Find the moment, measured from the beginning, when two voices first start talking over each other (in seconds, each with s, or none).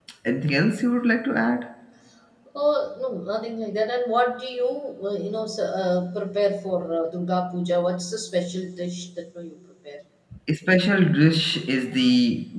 none